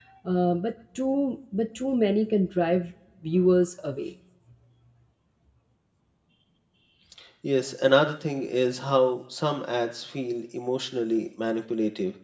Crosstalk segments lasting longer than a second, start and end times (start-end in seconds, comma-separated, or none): none